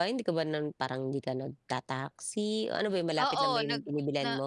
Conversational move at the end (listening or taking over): taking over